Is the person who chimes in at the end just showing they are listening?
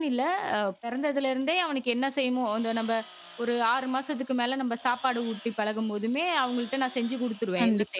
No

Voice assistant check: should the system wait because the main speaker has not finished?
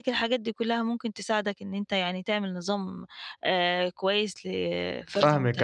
No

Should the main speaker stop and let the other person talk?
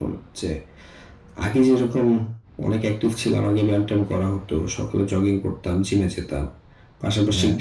No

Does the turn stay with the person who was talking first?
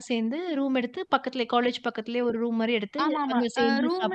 No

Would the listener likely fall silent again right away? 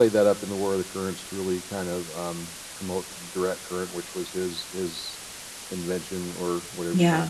Yes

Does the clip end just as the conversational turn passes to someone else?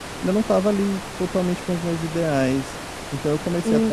Yes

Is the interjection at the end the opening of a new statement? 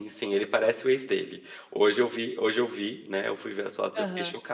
No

